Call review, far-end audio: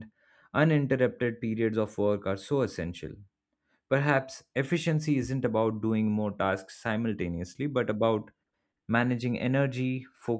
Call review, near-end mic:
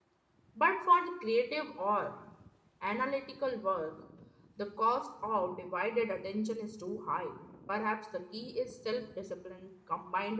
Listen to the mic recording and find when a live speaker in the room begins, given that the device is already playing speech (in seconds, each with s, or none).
0.6 s